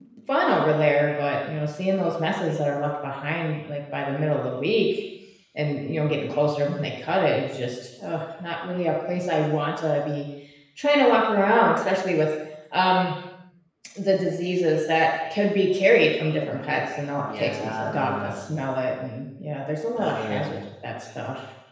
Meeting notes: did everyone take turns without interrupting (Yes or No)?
No